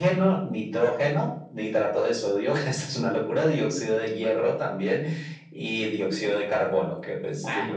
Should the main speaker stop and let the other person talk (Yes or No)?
Yes